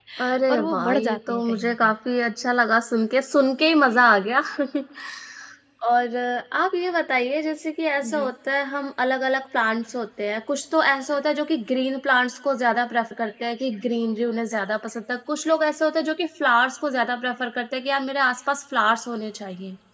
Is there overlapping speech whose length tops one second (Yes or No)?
Yes